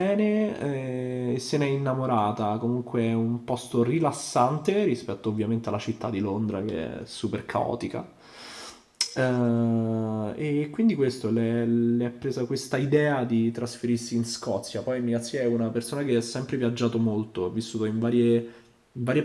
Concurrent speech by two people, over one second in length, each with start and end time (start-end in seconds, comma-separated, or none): none